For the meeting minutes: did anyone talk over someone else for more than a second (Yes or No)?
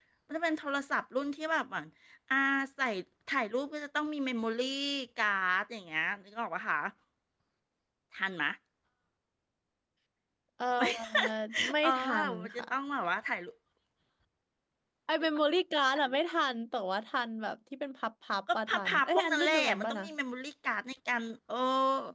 Yes